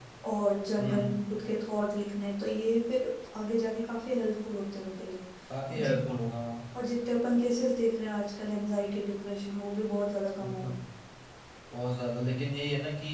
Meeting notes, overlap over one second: none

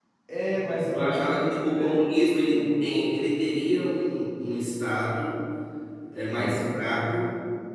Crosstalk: present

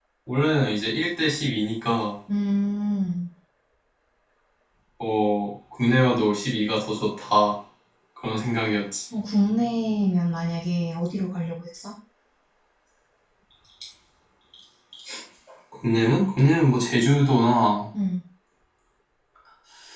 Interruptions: none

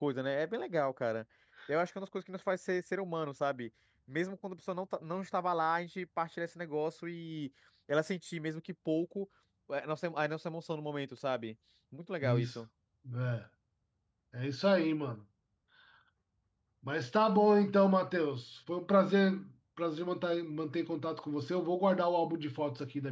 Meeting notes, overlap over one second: none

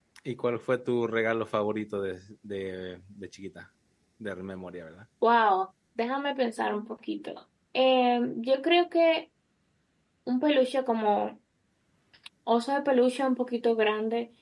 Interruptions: none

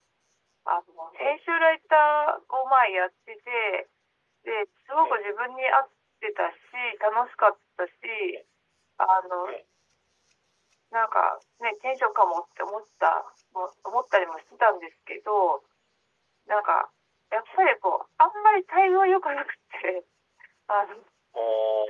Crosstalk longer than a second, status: none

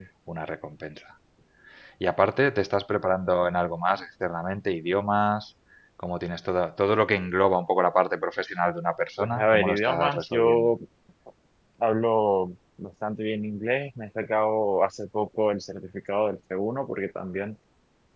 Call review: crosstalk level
present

